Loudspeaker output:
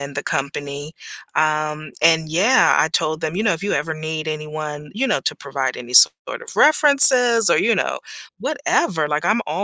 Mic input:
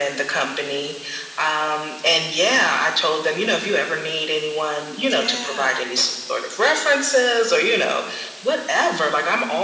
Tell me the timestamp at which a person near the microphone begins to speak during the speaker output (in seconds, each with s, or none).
5.1 s